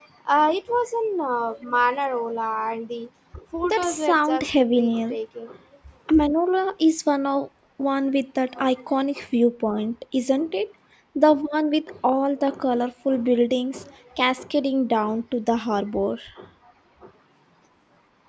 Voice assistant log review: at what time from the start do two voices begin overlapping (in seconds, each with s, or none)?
3.7 s